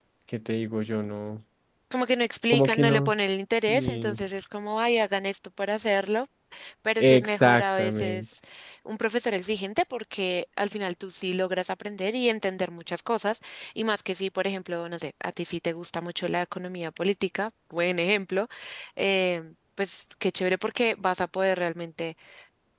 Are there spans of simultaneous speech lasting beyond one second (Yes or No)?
Yes